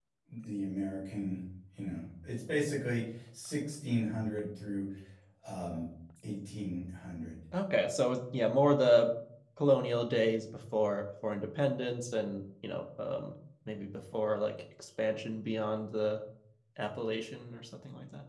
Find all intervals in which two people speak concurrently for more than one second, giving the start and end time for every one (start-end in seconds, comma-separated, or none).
none